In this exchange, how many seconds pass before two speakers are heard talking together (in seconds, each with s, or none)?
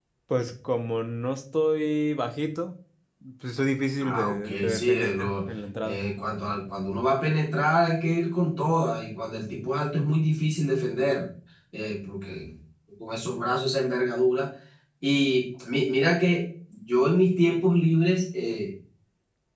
4.0 s